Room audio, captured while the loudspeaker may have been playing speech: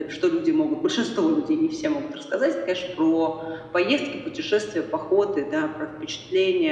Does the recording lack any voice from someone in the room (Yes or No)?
Yes